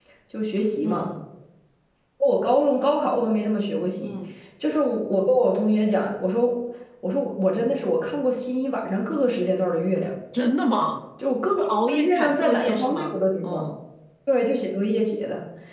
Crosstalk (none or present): present